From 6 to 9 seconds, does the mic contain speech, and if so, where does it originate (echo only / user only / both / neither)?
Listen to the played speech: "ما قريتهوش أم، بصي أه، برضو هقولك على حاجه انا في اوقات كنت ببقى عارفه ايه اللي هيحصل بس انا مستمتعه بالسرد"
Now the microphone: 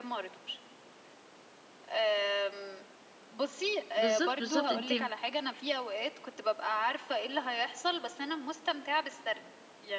echo only